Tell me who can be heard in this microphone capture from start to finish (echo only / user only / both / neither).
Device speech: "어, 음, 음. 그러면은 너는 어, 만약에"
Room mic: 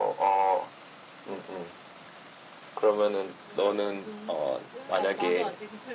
both